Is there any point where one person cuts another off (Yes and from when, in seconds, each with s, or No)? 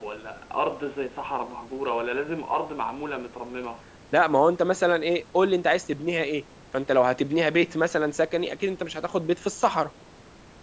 No